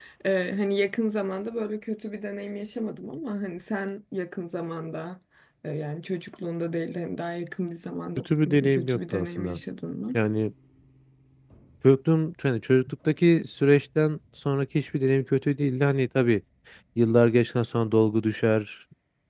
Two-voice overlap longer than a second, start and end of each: 8.2-9.6

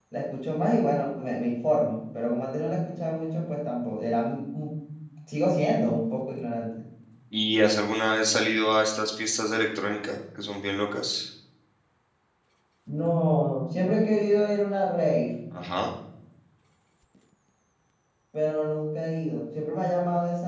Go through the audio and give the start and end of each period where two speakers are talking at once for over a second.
none

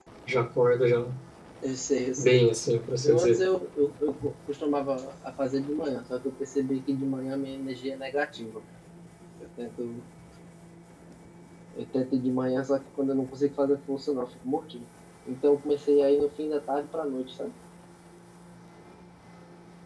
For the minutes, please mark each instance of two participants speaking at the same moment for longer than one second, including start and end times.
none

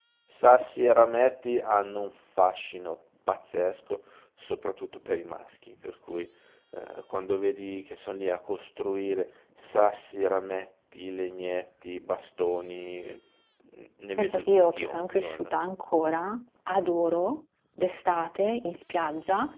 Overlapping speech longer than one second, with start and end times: 14.2-15.5

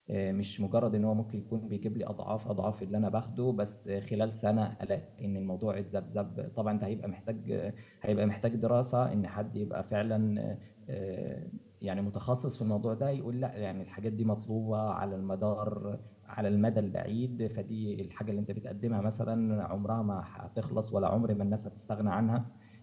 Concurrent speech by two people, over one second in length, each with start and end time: none

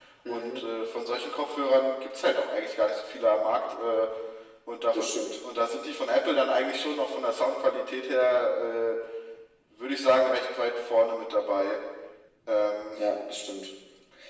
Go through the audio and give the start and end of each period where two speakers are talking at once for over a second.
none

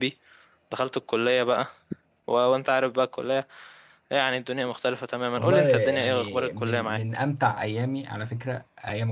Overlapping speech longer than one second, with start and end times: 5.4-7.0

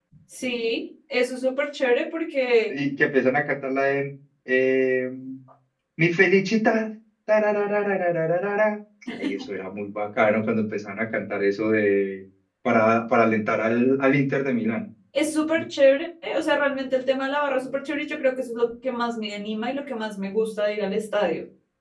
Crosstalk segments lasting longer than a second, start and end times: none

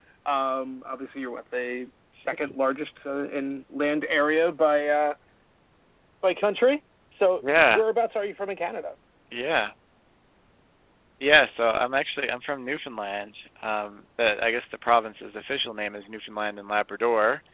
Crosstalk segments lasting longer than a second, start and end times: none

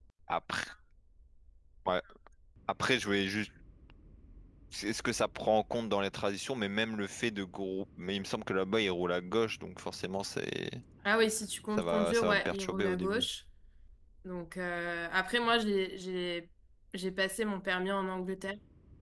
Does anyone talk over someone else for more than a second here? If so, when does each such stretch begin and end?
11.8-13.2

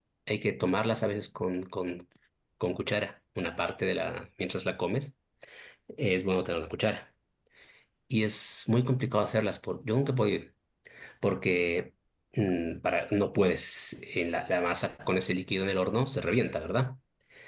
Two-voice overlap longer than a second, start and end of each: none

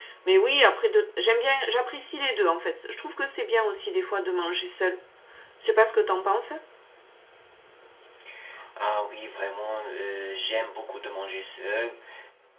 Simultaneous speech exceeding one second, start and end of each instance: none

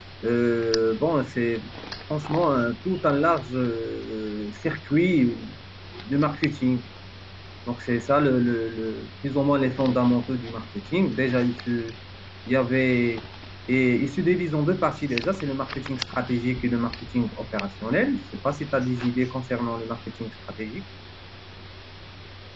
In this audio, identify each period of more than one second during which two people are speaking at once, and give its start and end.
none

